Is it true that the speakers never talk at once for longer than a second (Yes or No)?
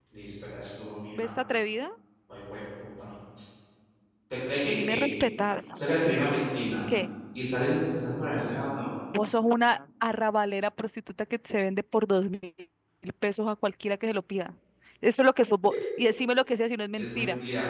Yes